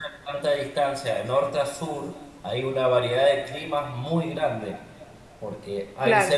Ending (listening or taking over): listening